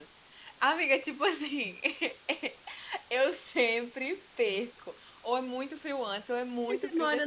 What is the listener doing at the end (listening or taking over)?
taking over